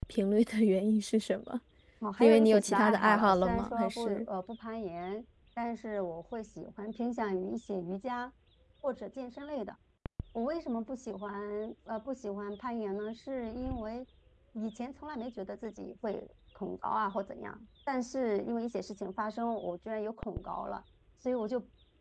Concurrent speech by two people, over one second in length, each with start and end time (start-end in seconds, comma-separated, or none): 2.2-4.3